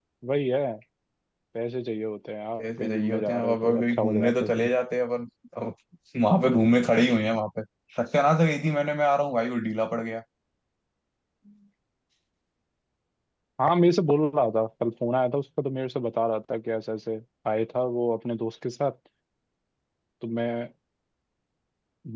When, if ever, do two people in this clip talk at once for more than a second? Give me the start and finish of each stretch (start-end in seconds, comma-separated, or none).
2.6-4.7